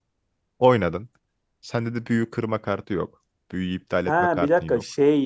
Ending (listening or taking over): taking over